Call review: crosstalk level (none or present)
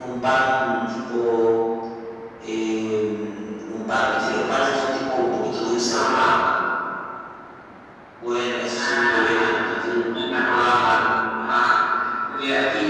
present